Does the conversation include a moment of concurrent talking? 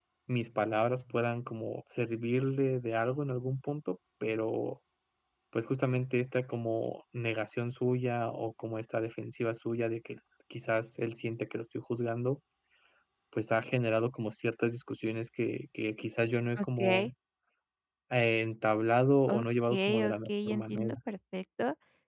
Yes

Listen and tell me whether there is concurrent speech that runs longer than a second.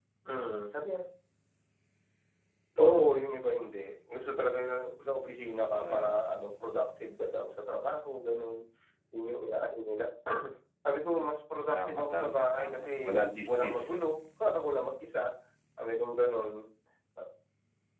Yes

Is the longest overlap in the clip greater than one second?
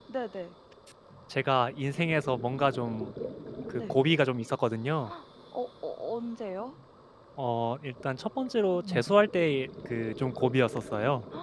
No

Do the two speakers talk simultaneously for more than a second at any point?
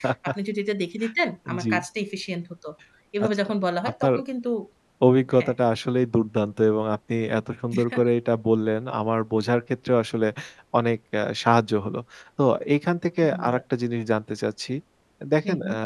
No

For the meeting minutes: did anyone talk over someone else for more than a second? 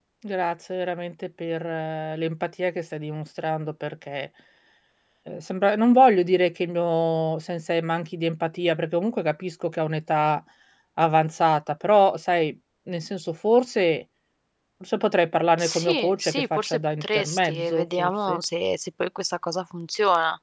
Yes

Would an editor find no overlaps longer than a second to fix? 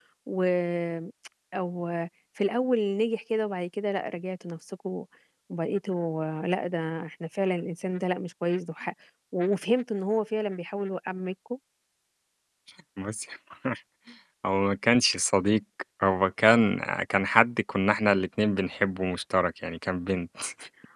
Yes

